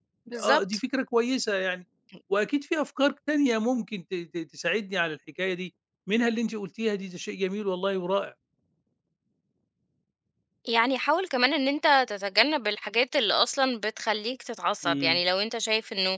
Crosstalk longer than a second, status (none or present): none